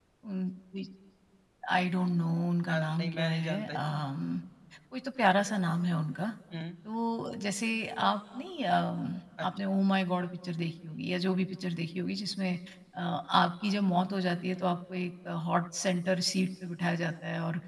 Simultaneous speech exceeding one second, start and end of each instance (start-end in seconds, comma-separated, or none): 2.7-4.1